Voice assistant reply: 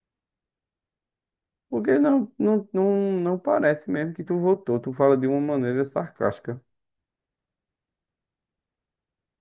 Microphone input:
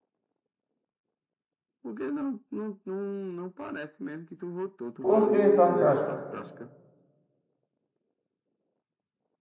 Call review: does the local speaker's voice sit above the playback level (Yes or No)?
Yes